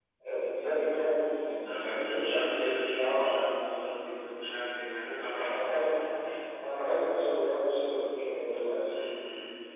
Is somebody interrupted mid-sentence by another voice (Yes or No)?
Yes